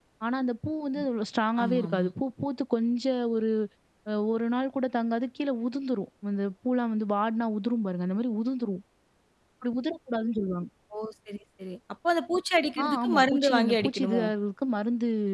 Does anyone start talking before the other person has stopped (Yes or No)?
Yes